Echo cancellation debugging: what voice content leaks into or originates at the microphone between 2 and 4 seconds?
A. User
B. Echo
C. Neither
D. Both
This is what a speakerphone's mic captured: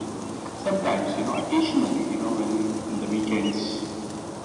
B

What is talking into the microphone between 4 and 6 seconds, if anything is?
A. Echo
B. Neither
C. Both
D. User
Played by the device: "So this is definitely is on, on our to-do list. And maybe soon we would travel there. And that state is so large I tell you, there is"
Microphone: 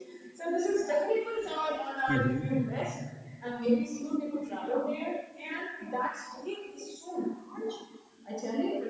A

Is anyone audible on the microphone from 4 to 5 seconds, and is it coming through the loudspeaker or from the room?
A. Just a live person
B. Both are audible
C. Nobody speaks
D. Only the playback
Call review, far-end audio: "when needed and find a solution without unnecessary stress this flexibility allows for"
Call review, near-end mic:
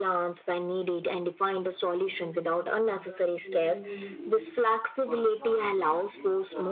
D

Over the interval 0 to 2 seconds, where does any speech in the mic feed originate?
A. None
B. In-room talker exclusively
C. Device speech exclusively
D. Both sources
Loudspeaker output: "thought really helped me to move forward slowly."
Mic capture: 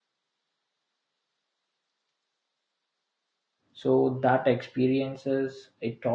A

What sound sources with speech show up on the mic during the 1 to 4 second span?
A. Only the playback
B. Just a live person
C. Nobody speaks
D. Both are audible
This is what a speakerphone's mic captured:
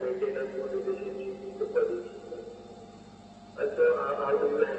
A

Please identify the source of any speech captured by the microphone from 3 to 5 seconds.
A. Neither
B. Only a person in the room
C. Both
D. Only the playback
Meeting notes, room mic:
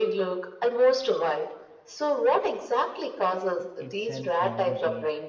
C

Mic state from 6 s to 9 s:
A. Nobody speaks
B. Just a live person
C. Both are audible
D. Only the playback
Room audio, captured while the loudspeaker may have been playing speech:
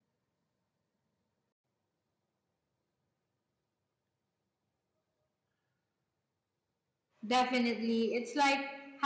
B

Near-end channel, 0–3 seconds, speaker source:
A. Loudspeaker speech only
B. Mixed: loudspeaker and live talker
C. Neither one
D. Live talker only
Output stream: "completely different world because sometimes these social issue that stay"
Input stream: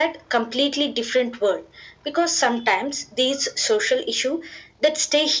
A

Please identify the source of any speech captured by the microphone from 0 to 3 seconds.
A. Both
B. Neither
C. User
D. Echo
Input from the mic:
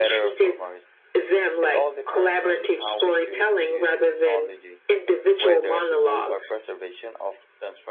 A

